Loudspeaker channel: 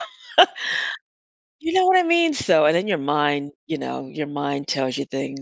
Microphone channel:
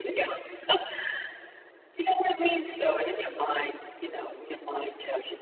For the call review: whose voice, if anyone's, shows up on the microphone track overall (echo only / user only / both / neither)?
echo only